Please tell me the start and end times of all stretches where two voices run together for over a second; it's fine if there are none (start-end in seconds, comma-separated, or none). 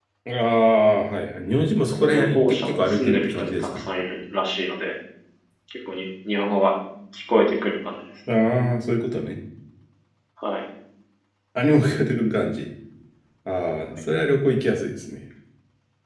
2.0-3.8